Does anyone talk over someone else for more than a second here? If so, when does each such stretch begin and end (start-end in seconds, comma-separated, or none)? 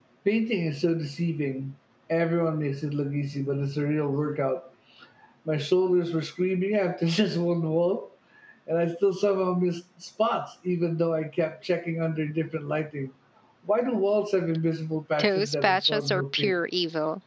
15.2-16.6